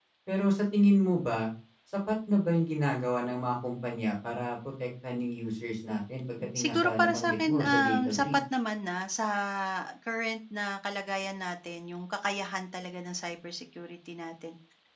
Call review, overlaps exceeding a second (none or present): present